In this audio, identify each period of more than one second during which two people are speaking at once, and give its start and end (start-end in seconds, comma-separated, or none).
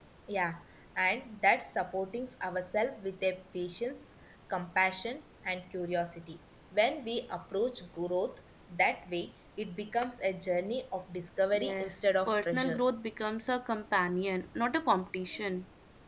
11.5-12.8